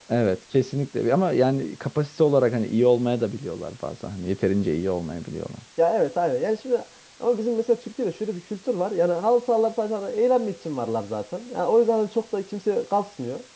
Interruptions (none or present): none